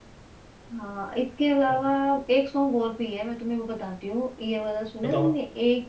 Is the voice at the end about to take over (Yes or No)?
No